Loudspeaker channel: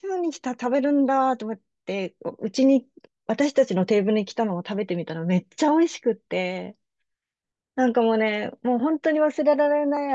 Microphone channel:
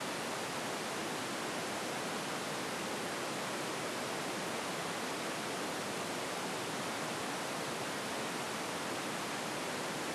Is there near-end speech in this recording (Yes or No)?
No